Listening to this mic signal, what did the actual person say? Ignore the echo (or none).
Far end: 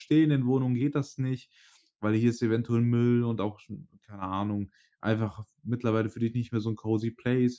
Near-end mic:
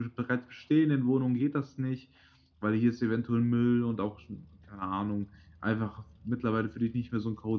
none